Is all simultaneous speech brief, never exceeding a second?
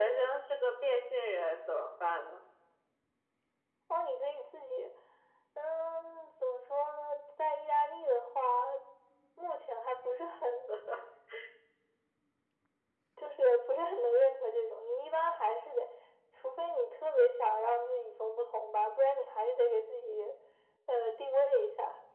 Yes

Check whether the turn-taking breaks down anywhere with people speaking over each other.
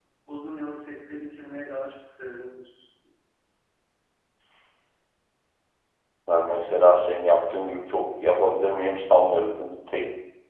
No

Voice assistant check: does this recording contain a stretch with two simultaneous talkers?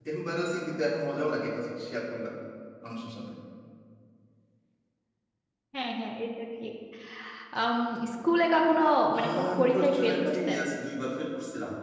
Yes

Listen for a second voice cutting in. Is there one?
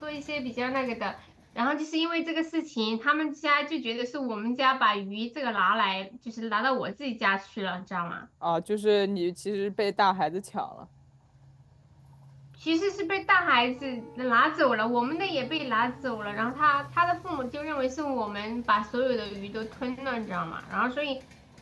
No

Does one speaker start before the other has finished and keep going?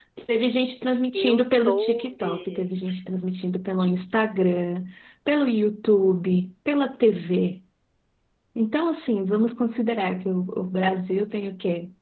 Yes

